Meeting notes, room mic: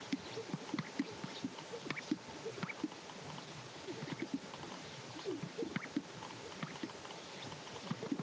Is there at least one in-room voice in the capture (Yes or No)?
No